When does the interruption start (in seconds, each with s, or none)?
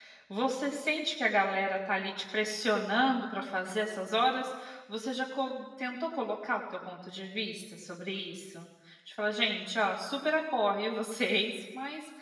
none